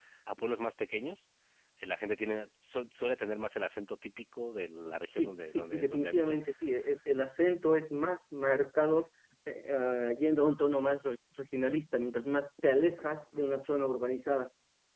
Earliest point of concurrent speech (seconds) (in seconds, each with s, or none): 5.1 s